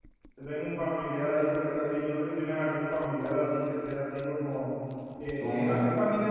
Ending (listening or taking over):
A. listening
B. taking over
A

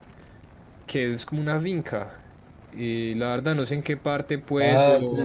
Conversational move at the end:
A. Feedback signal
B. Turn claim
B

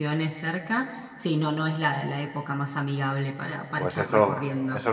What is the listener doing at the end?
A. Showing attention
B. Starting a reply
B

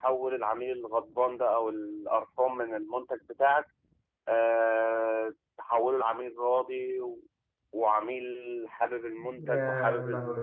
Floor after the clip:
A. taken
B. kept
B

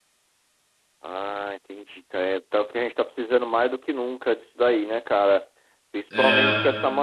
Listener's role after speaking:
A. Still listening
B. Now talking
A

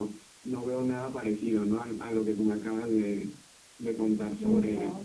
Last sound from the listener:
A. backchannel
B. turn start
B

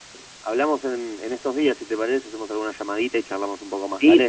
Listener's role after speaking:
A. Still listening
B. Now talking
B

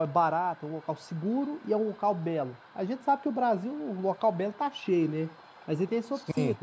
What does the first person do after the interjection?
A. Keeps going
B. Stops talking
A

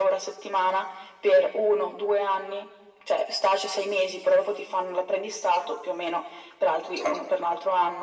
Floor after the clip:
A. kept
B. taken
A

